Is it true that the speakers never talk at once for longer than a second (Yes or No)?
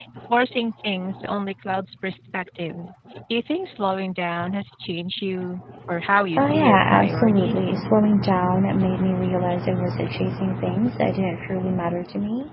No